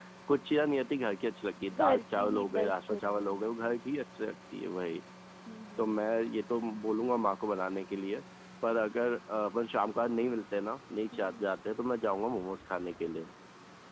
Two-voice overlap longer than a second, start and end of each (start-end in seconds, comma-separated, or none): 1.7-3.3